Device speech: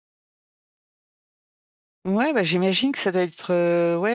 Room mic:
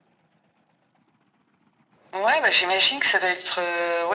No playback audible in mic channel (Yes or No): No